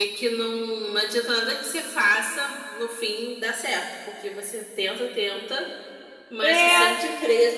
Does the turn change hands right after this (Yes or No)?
No